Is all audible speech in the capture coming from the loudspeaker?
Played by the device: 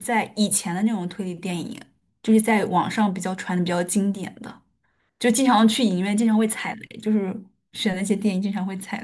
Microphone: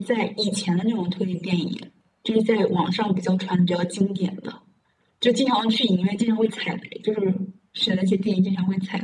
Yes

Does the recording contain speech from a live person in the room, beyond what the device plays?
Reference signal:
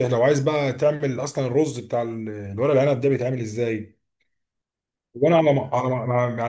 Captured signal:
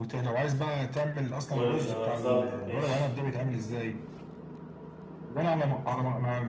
Yes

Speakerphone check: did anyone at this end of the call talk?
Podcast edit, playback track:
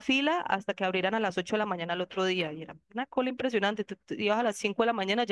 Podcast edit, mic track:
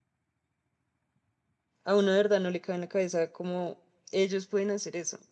Yes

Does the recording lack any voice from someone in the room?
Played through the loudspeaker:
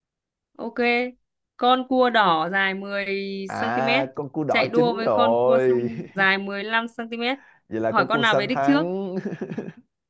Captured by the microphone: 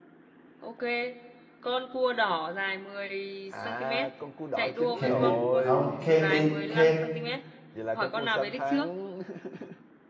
No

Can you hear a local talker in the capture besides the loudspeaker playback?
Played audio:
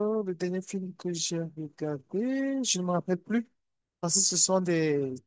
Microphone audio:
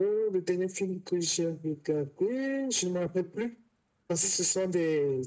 No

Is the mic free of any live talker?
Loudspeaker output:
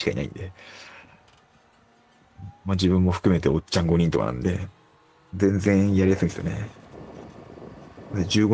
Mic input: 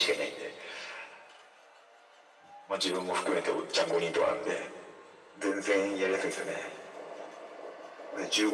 Yes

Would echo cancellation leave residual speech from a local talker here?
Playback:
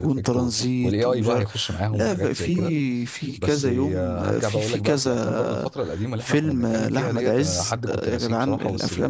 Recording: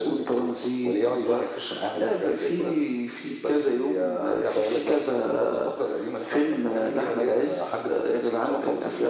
No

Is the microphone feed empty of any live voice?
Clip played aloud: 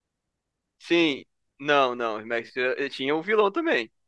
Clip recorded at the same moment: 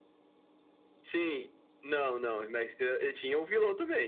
Yes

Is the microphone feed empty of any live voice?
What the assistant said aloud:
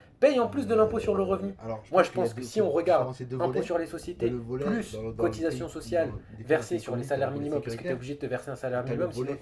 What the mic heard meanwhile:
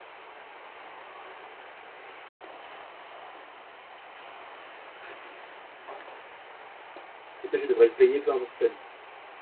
No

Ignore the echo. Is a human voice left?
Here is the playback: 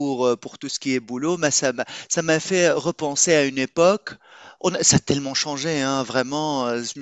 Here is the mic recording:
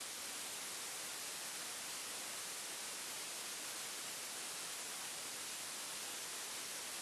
No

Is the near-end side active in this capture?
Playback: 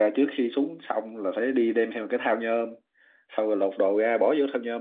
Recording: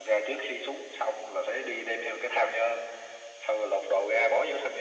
No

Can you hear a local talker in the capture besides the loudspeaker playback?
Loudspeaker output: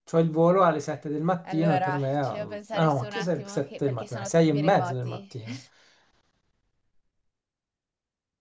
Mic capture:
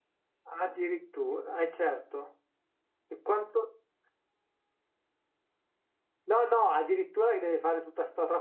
Yes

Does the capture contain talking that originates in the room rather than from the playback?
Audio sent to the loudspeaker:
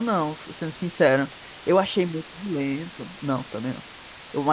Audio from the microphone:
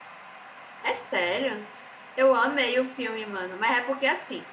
Yes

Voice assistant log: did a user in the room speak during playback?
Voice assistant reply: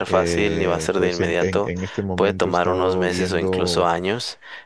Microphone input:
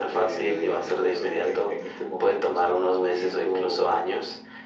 No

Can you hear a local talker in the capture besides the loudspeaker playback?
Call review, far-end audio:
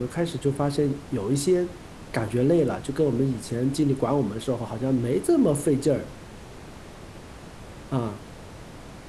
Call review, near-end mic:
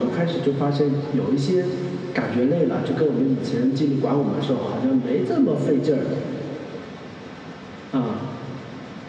No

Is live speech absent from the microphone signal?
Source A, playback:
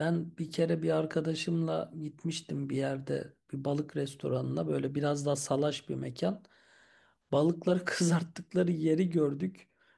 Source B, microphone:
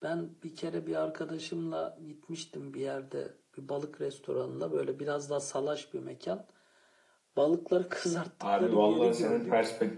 No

